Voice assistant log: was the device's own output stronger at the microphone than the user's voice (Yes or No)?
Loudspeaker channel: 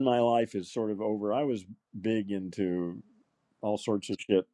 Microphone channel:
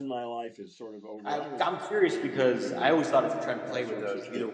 No